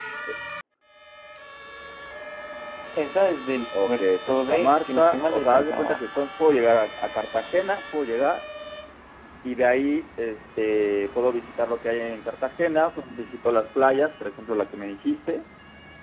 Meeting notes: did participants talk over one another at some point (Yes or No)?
Yes